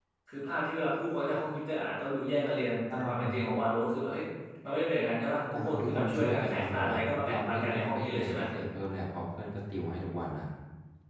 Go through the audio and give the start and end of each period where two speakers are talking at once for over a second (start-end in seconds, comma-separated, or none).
5.5-8.4